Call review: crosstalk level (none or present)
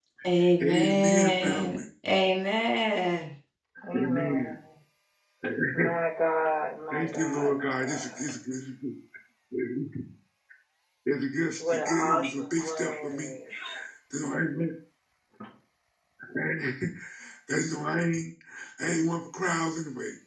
present